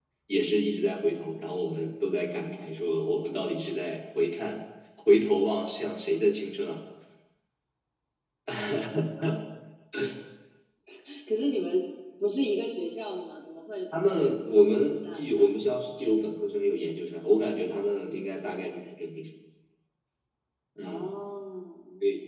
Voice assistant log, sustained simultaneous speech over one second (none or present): present